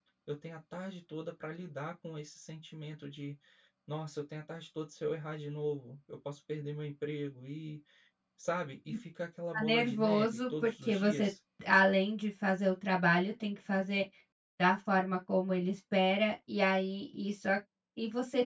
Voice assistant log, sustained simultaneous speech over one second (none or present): present